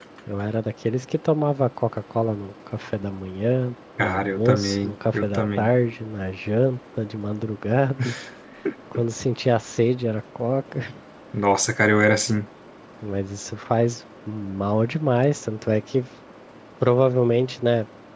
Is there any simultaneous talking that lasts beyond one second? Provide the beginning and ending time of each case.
4.0-5.7

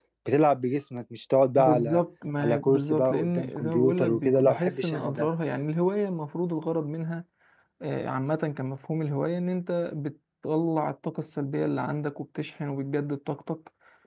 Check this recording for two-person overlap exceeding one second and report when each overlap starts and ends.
2.4-5.3

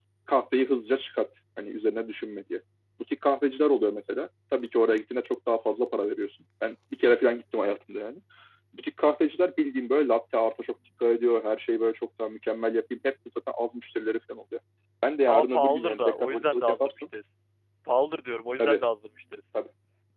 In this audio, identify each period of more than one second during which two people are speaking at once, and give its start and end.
15.3-17.1

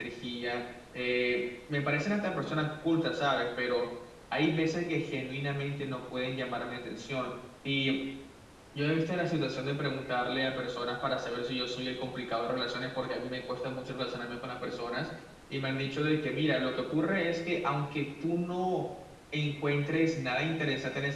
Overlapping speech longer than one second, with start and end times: none

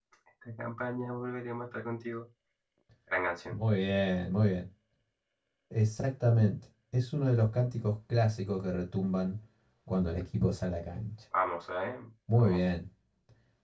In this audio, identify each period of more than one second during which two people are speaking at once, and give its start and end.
none

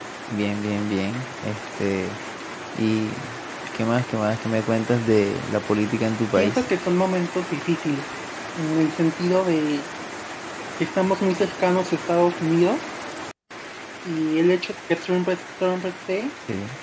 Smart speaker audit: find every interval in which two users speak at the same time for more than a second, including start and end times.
none

